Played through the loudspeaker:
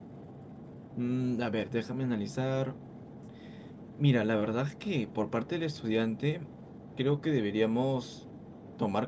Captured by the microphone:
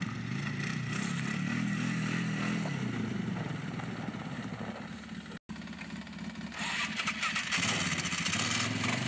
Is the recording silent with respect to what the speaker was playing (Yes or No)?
Yes